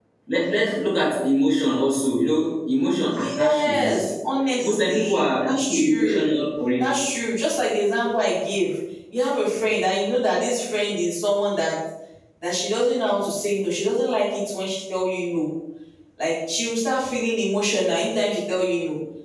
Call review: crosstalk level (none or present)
present